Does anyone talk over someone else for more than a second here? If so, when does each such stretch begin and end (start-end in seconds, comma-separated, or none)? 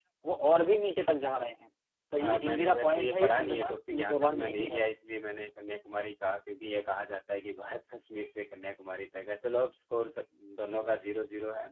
2.2-4.8